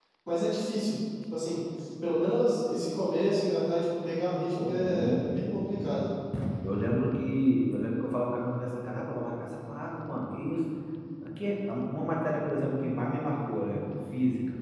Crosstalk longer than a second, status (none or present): present